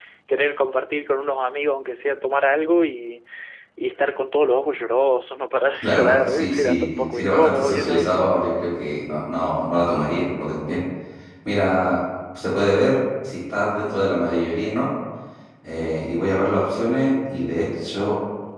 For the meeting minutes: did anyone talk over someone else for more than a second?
Yes, from 5.7 s

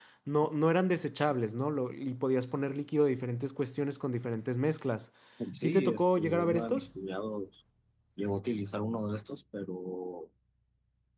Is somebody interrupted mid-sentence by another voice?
Yes, from 5.6 s

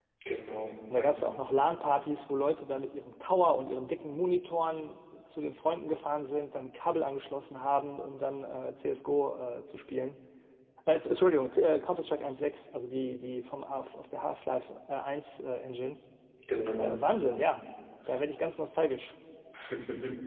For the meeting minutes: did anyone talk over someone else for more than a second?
No

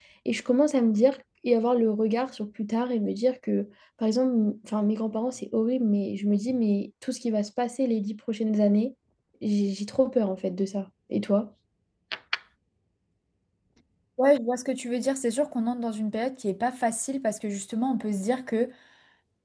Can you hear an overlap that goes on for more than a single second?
No

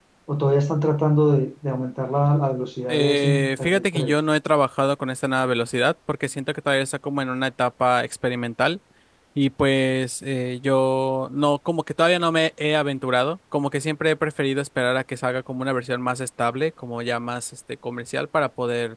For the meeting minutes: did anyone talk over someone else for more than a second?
Yes, from 2.9 s

